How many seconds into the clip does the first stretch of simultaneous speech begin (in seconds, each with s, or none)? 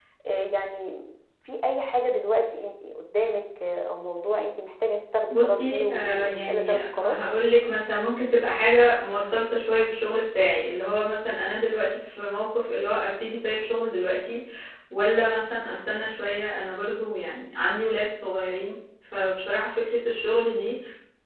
5.3 s